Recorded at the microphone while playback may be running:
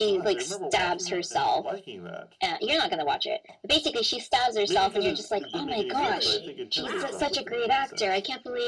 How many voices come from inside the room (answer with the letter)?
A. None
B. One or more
B